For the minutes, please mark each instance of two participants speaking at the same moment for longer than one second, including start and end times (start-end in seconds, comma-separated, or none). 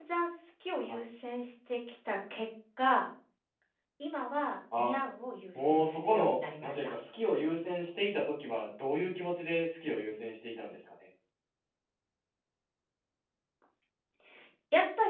5.5-6.9